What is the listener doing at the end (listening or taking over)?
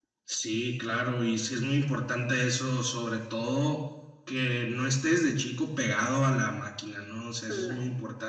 listening